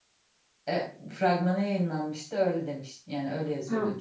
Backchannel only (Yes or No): No